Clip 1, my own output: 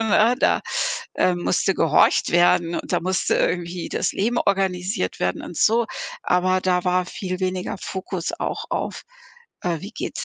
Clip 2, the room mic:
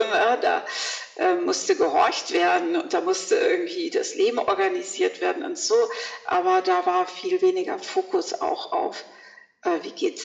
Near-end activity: none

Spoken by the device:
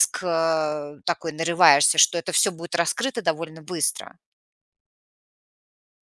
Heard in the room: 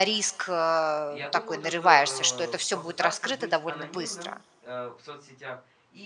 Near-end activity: present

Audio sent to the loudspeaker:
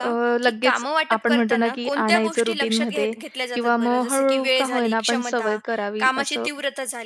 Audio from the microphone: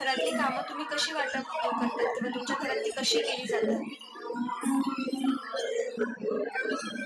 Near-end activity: present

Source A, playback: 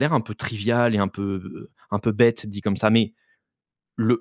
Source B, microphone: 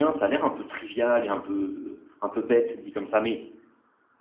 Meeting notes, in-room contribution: none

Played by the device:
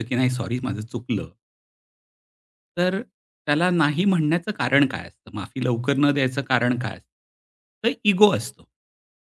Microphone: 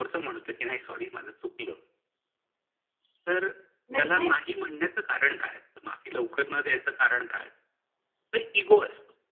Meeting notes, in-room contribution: present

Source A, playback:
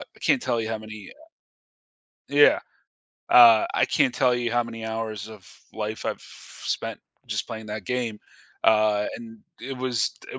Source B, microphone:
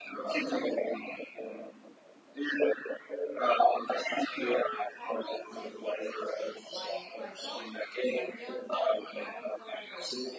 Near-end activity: present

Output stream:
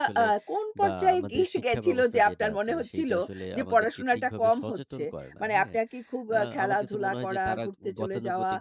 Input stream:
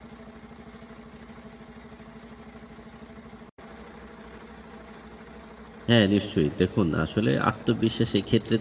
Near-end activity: present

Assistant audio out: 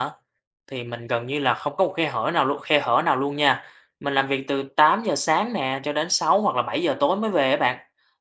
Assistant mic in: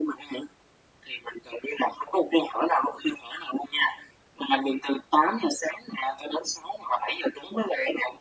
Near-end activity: none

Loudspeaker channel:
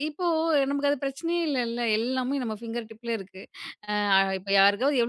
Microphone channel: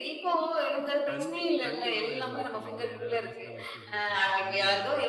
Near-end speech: present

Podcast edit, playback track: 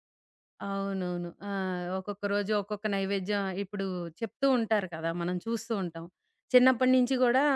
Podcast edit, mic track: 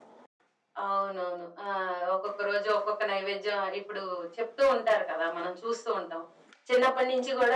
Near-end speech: none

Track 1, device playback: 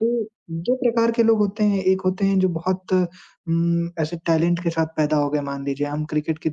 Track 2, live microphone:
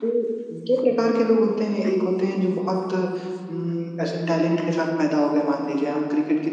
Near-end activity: none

